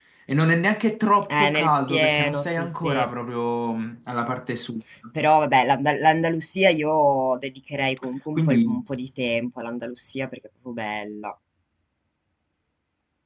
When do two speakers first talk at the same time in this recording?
1.3 s

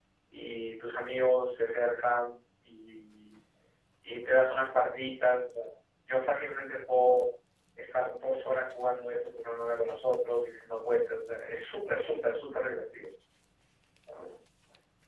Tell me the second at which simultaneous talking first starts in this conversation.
none

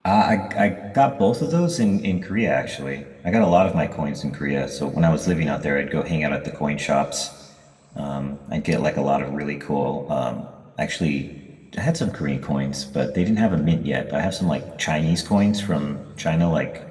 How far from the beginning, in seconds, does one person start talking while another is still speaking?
none

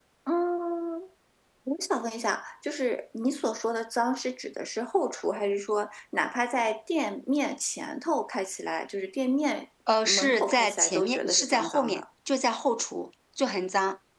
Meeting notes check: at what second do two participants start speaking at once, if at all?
9.9 s

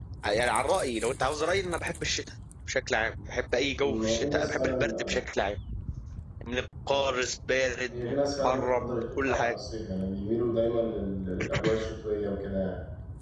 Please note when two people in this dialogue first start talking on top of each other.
3.8 s

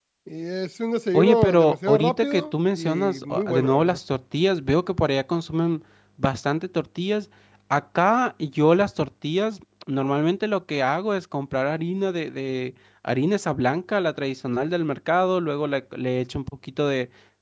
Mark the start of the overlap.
1.1 s

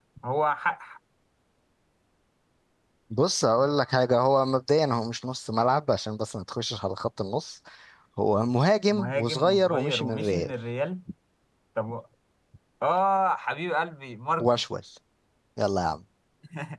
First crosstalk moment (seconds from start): 8.9 s

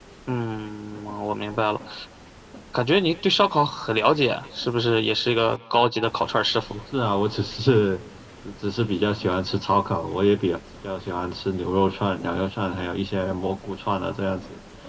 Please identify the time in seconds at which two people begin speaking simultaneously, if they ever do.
none

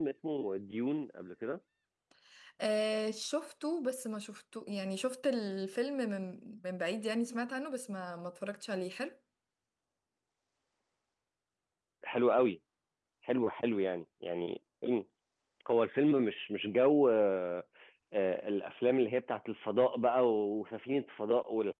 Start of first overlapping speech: none

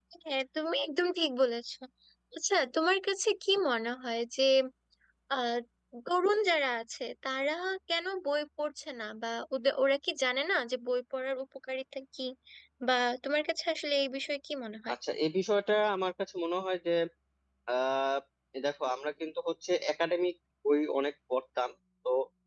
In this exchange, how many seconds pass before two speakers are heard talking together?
none

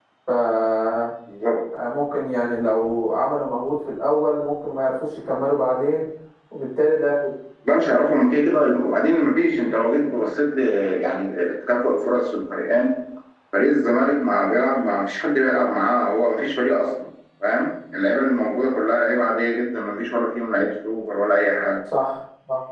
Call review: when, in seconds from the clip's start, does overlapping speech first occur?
none

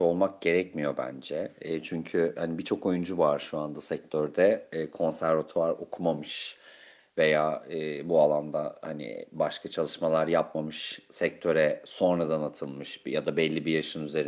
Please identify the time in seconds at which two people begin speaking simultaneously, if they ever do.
none

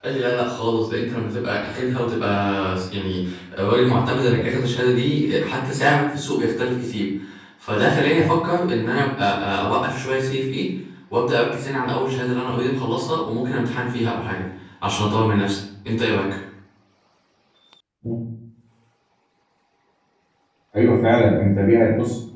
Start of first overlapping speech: none

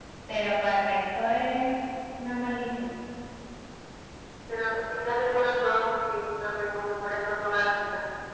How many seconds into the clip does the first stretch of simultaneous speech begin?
none

